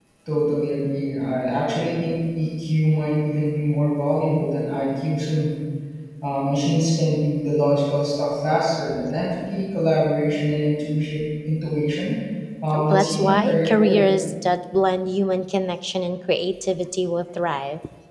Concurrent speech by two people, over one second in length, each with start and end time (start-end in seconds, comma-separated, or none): 12.7-14.1